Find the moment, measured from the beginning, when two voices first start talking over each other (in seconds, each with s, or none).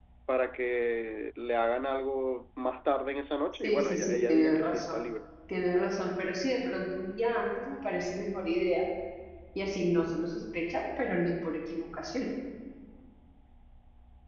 3.6 s